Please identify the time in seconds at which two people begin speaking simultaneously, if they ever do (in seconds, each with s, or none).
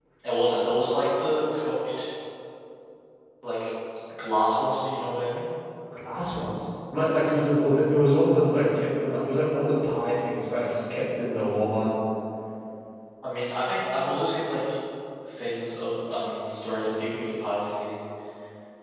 none